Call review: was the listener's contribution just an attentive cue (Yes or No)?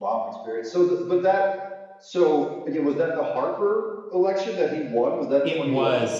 No